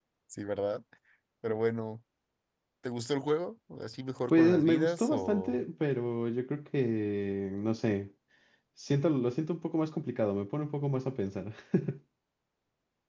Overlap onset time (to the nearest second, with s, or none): 4 s